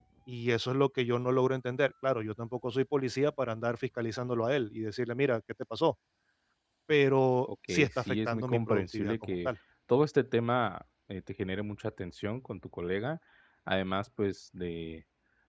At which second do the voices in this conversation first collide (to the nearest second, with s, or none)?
8 s